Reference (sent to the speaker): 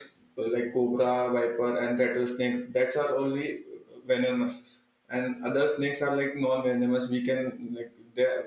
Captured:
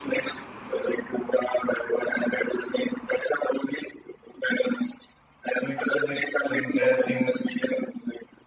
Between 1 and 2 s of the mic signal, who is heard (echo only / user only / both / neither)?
echo only